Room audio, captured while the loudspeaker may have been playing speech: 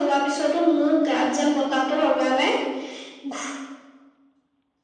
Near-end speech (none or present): none